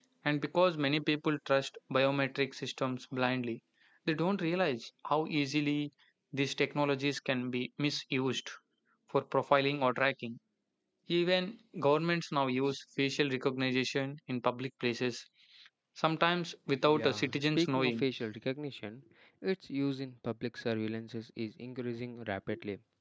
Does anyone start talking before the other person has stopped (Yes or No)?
Yes